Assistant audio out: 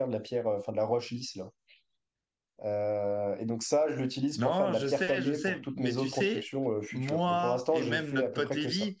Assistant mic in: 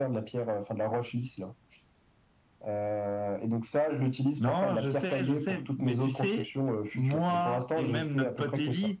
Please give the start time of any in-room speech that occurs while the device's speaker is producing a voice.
none

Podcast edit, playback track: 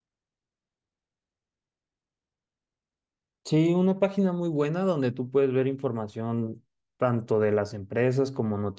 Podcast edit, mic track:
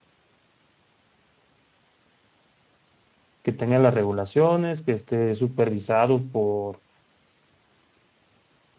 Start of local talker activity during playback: 3.4 s

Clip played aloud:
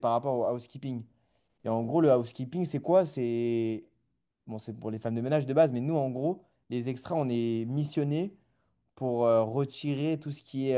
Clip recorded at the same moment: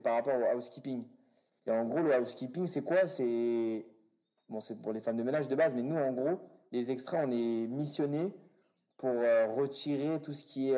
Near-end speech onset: none

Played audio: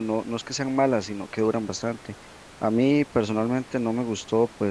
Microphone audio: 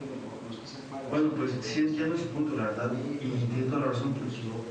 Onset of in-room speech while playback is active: 1.1 s

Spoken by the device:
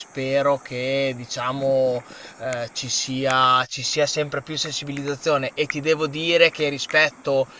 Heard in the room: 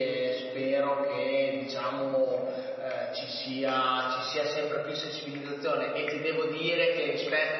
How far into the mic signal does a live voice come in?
none

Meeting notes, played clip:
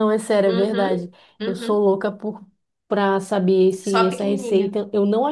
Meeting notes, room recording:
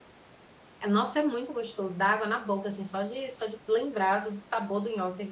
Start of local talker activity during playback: 0.9 s

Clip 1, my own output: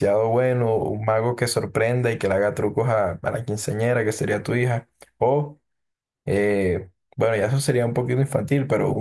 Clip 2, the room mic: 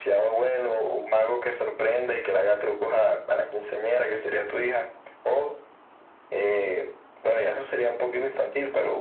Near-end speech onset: none

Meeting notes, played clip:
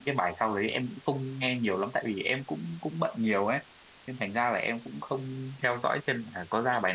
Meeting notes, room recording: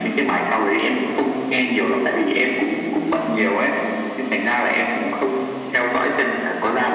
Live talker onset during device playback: none

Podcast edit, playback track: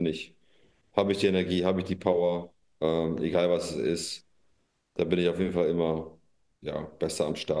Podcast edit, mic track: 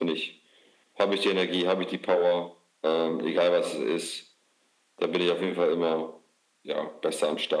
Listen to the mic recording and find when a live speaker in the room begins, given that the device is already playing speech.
none

